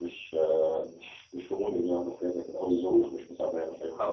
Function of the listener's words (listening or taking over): taking over